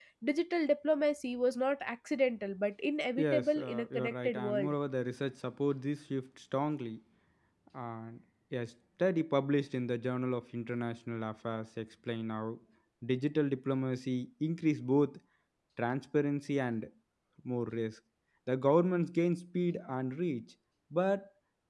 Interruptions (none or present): present